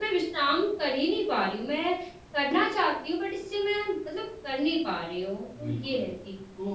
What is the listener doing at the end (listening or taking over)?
taking over